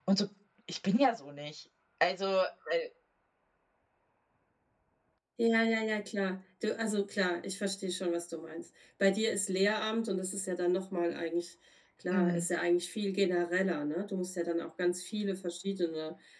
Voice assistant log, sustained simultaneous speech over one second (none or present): none